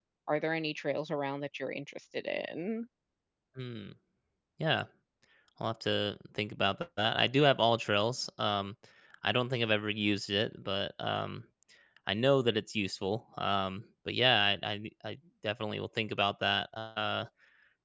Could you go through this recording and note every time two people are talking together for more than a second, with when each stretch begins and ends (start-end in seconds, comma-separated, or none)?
none